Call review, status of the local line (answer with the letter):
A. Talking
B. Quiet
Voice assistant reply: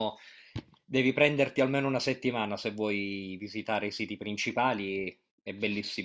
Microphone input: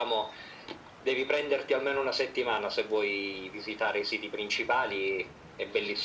B